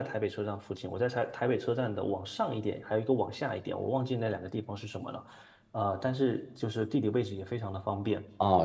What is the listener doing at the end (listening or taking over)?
taking over